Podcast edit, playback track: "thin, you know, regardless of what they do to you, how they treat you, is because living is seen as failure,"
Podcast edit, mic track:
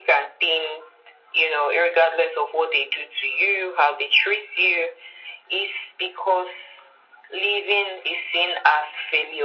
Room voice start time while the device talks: none

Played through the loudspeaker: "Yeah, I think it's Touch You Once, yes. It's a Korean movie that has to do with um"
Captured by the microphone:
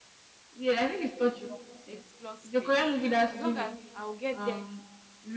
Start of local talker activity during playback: 1.9 s

